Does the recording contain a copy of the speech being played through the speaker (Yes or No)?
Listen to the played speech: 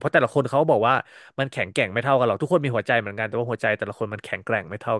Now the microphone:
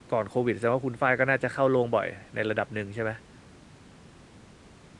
No